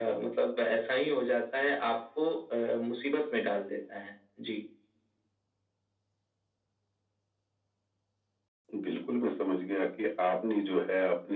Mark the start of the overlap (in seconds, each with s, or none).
none